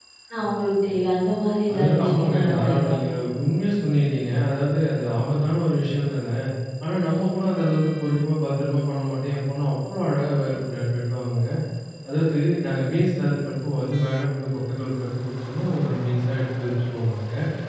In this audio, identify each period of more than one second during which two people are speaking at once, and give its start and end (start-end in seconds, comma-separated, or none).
1.7-2.9